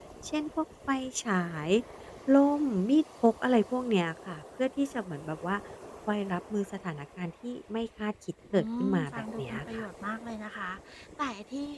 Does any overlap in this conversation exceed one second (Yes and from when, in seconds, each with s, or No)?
Yes, from 8.5 s